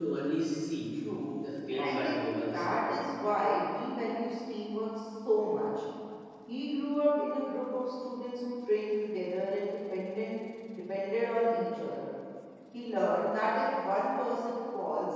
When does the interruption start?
1.7 s

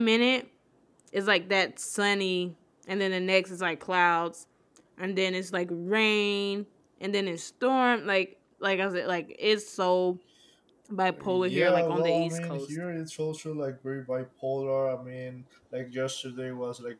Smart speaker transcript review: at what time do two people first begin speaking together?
11.1 s

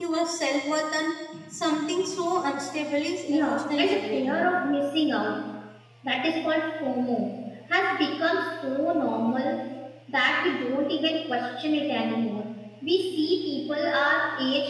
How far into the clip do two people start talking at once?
3.3 s

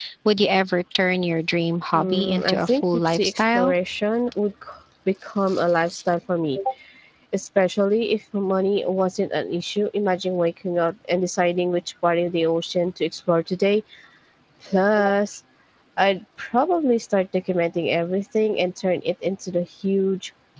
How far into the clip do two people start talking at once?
1.9 s

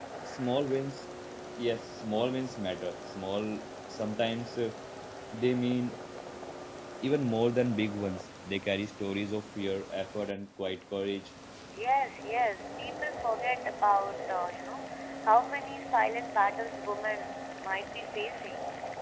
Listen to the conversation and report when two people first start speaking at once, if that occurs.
none

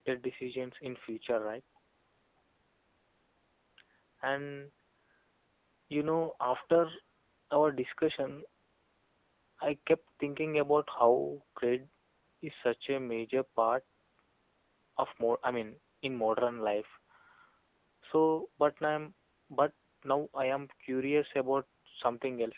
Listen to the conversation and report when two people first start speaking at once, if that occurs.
none

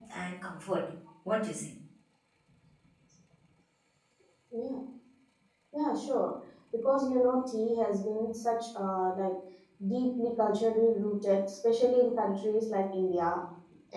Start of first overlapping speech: none

